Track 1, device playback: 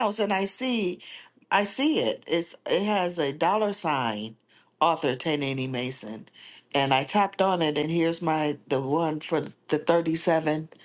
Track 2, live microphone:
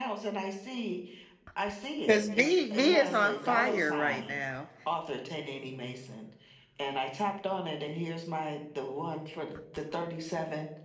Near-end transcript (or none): Because me, me is on fire right now.